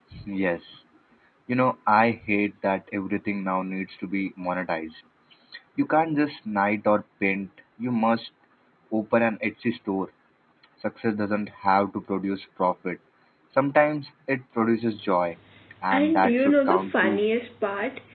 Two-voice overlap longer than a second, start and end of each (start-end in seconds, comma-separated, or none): 15.9-17.2